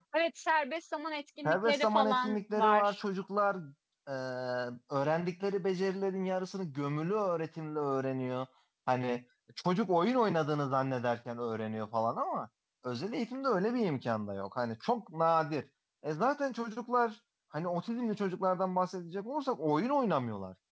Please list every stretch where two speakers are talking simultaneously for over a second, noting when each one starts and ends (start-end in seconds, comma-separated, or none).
1.4-3.0